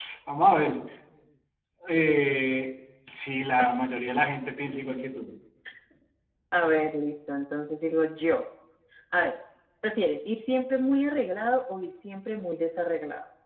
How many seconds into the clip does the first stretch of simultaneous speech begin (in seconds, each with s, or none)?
none